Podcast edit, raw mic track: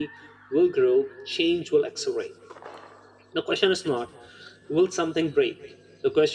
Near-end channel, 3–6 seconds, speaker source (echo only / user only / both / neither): user only